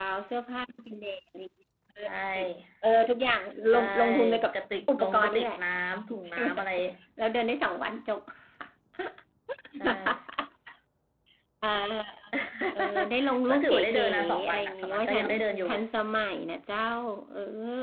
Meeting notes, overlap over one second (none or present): present